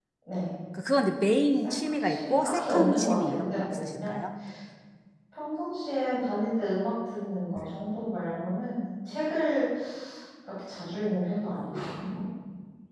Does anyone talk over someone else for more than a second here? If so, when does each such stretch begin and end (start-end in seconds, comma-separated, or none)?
1.6-4.2